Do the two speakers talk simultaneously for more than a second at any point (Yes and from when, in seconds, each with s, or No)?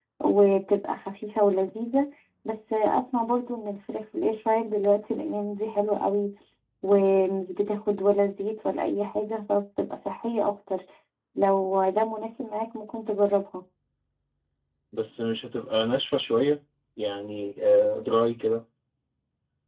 No